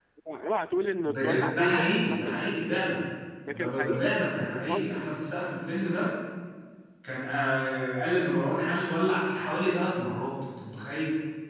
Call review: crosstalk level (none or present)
present